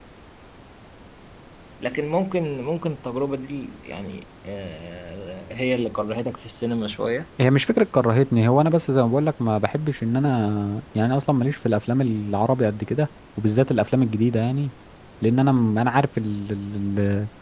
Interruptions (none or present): none